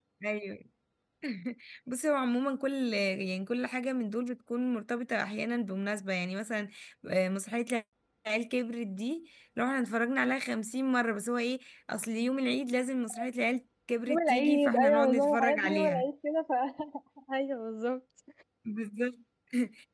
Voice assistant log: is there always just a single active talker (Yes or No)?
No